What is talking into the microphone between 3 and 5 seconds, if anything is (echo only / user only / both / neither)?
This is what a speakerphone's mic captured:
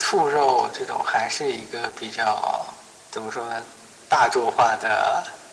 echo only